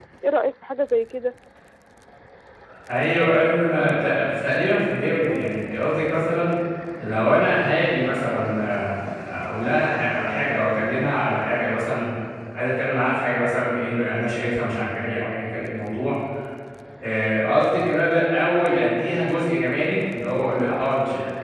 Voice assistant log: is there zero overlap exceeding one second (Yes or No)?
Yes